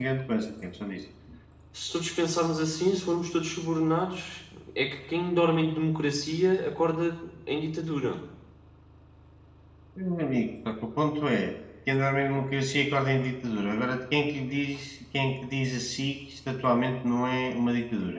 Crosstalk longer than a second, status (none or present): none